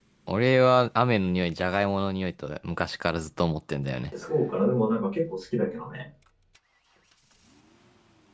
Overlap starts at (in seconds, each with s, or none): none